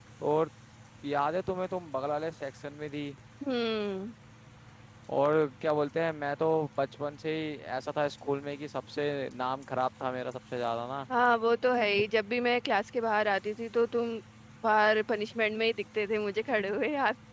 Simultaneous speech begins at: none

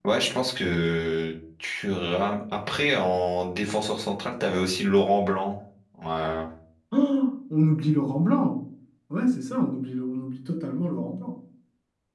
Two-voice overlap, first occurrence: none

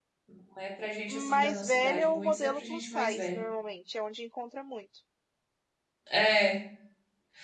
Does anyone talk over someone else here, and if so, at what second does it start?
1 s

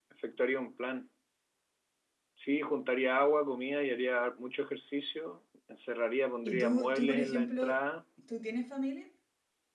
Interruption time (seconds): 6 s

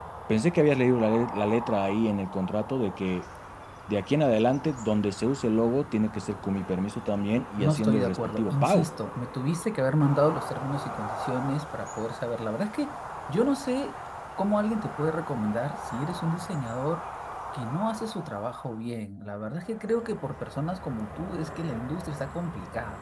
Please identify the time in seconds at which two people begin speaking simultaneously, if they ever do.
8 s

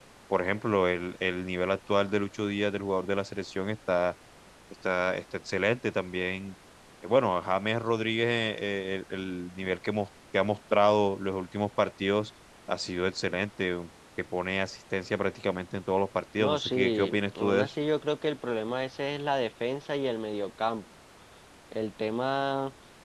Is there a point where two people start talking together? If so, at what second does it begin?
16 s

